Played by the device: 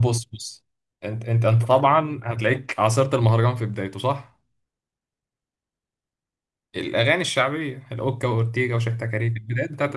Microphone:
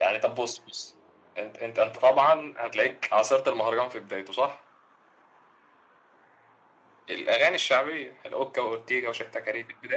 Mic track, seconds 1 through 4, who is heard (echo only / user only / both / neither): echo only